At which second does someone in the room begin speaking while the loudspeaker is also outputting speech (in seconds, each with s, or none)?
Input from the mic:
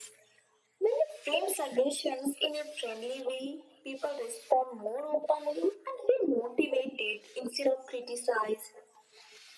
none